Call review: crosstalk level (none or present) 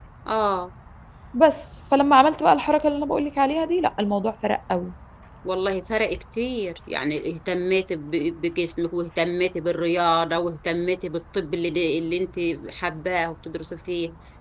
none